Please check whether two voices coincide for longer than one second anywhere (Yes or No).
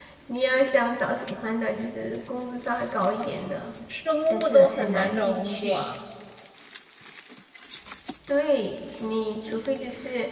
Yes